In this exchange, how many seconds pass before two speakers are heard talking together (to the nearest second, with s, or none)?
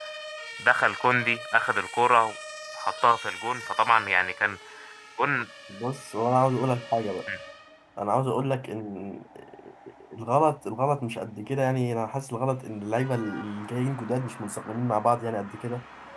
none